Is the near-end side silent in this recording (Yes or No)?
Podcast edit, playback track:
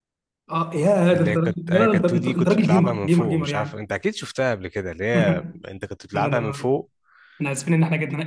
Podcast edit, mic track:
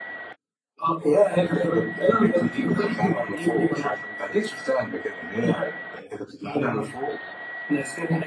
Yes